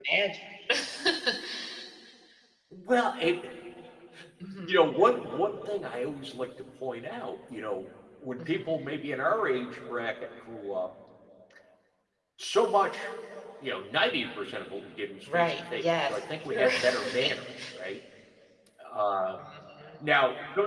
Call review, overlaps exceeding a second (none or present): present